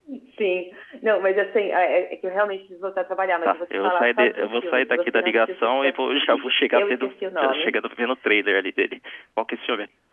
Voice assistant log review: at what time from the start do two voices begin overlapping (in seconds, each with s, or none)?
3.4 s